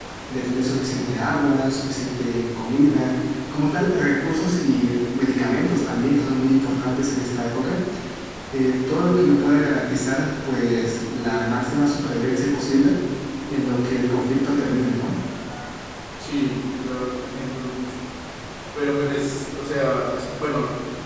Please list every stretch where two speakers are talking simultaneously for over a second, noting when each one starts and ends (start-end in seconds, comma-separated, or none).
none